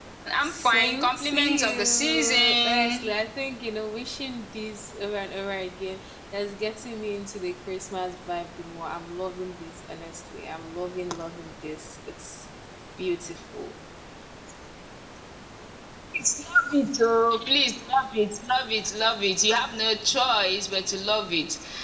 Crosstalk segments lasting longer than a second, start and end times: 0.7-3.0

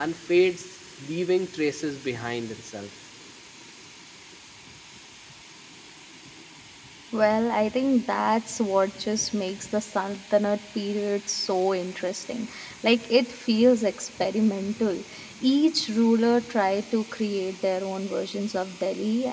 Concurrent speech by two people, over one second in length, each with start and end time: none

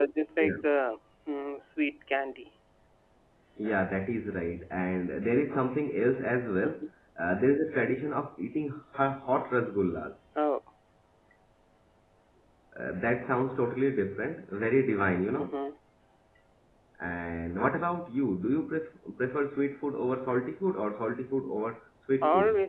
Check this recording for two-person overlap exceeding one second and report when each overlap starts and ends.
none

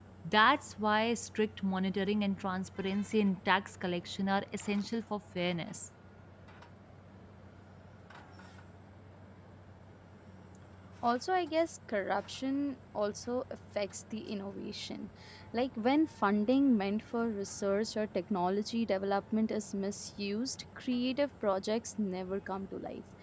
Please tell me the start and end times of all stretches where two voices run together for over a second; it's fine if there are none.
none

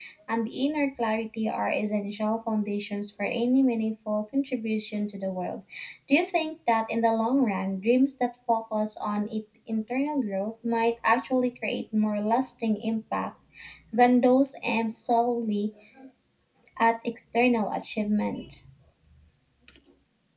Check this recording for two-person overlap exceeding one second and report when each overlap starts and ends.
none

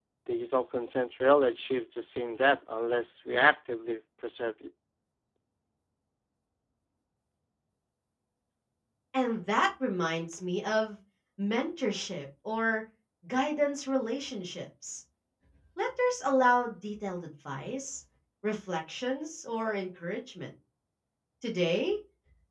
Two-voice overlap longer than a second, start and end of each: none

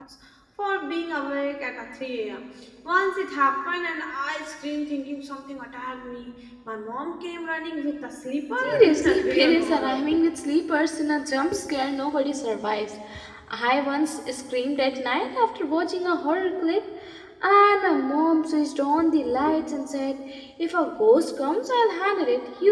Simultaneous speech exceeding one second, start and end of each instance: 8.6-10.0

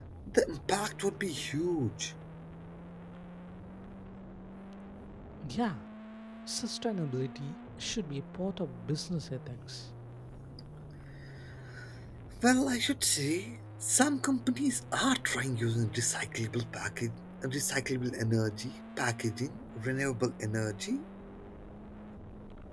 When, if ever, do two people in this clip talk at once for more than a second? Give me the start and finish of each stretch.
none

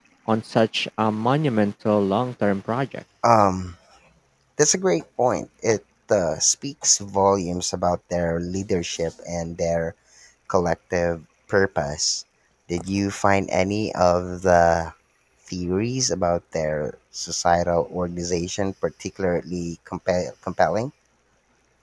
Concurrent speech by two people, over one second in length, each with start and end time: none

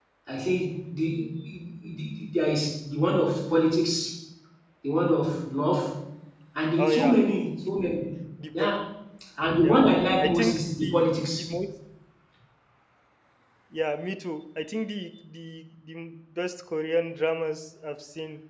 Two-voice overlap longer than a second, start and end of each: 10.2-11.5

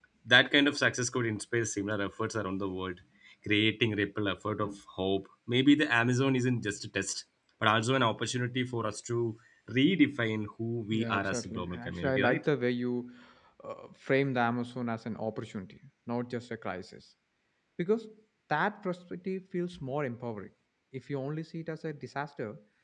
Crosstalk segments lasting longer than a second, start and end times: 10.9-12.4

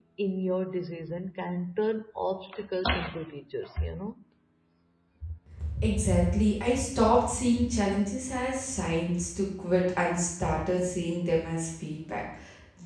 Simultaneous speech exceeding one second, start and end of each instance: none

